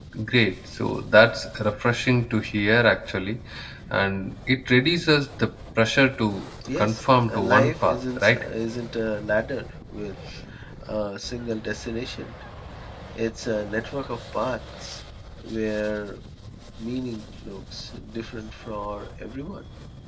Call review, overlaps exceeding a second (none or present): present